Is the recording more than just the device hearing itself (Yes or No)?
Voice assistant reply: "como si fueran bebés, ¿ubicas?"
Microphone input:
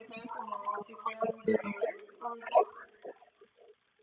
No